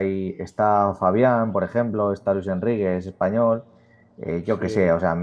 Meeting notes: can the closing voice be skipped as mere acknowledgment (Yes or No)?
Yes